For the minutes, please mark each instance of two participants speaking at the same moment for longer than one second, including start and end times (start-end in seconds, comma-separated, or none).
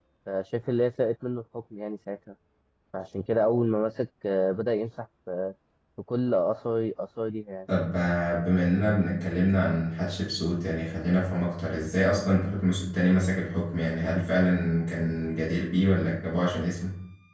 none